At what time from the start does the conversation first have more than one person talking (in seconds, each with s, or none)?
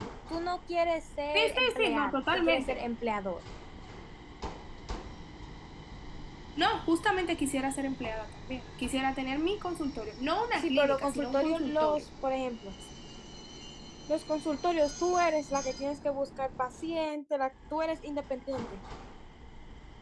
1.3 s